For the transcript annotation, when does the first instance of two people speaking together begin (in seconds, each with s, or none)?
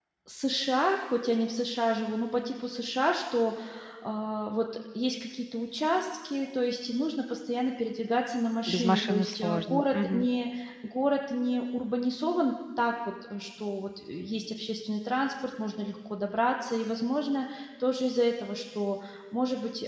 8.7 s